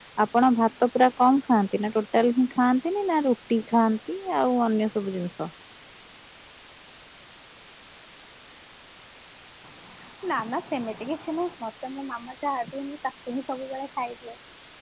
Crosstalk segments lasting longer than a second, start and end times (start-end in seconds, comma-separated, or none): none